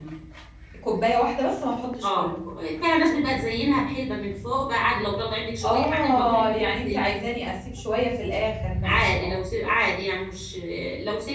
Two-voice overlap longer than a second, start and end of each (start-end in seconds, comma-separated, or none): 5.6-7.2